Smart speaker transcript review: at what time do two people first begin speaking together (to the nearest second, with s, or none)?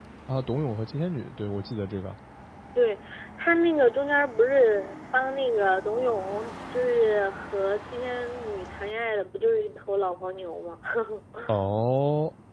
none